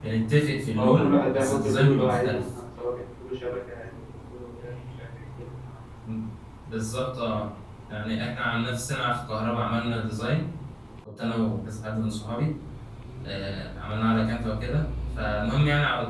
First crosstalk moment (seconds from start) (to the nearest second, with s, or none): 1 s